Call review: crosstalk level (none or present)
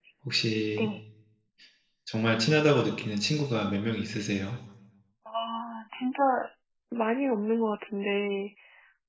none